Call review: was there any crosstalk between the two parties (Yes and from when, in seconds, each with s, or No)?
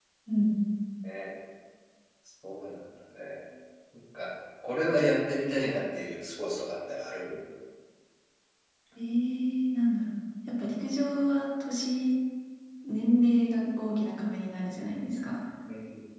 No